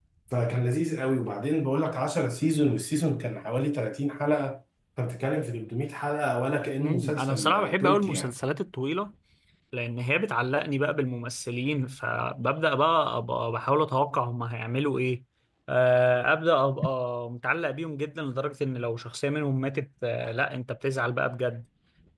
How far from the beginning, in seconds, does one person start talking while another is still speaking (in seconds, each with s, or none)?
6.8 s